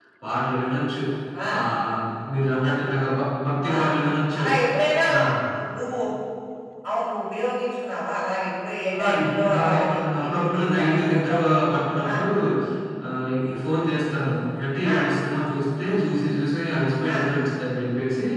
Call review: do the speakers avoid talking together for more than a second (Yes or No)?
No